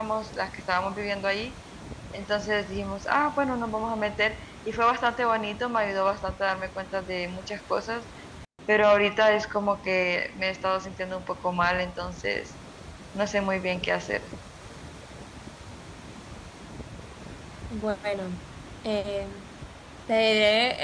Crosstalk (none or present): none